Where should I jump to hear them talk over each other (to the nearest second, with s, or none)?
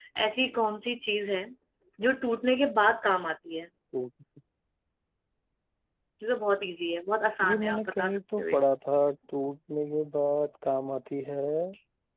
7 s